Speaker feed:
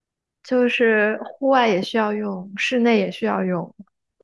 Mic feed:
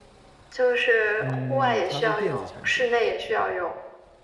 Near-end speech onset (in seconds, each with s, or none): 1.2 s